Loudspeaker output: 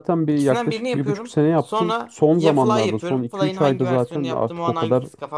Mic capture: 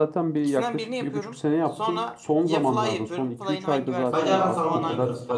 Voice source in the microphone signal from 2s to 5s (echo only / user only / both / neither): both